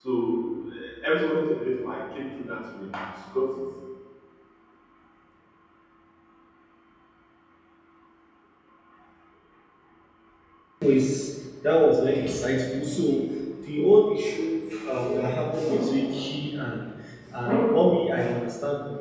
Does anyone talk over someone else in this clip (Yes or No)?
No